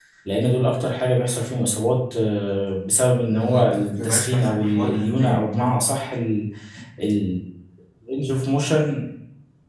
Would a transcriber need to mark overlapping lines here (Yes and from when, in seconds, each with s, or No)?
Yes, from 3.3 s